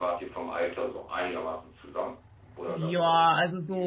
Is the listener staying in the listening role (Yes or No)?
No